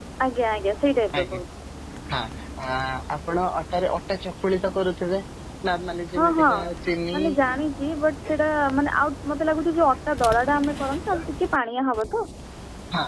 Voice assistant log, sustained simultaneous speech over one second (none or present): none